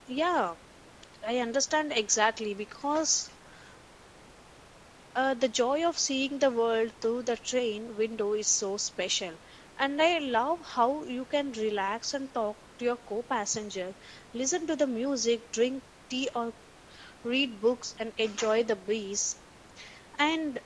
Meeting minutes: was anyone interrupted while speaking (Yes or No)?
No